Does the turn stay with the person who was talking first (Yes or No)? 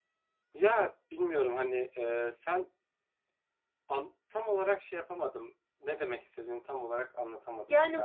No